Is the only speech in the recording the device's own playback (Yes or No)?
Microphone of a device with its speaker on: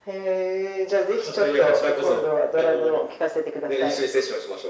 Yes